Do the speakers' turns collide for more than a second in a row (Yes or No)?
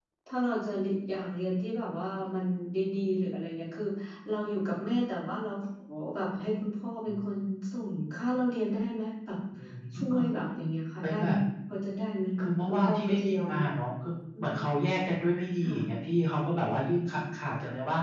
Yes